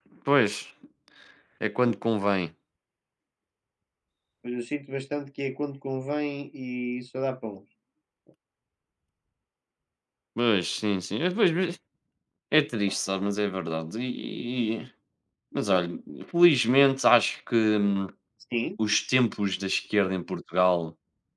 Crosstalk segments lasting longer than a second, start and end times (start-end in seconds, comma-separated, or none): none